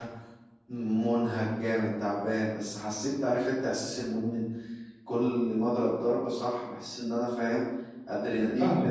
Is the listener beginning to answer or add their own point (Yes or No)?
Yes